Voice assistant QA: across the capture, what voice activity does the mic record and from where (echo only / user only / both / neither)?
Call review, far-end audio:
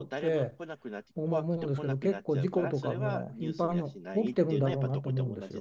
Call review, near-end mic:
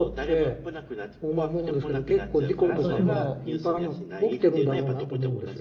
both